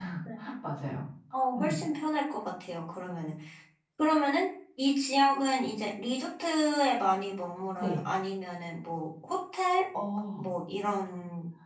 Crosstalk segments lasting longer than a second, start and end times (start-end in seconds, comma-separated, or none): none